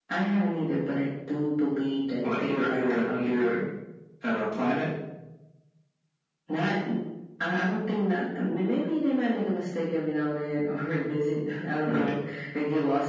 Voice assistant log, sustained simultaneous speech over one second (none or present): present